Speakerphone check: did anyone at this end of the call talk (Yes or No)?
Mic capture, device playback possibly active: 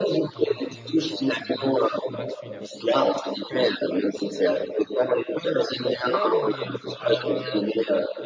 Yes